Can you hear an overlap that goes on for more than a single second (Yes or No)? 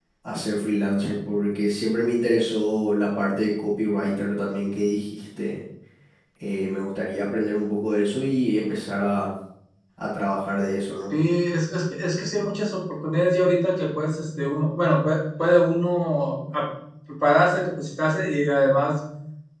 No